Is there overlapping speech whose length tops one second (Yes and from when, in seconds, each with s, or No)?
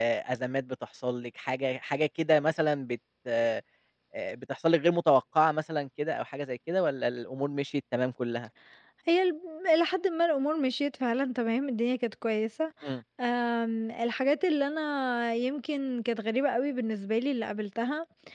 No